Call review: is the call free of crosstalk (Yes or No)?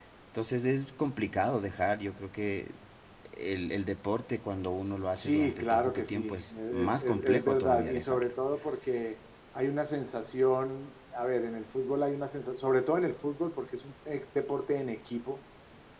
No